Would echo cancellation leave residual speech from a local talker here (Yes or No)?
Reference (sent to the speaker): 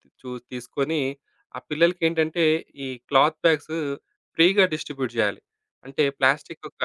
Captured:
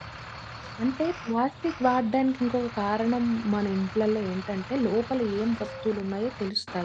Yes